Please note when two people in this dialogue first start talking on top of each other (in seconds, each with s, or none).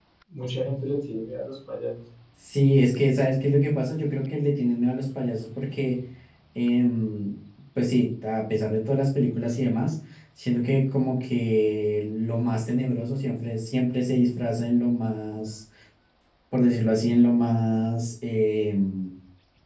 none